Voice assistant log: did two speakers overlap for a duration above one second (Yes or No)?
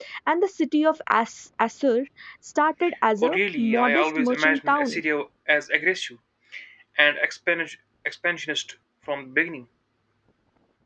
Yes